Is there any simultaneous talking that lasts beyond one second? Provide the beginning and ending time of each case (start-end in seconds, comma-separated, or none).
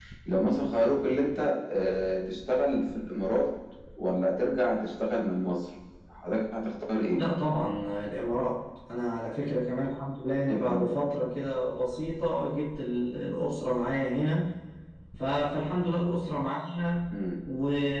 none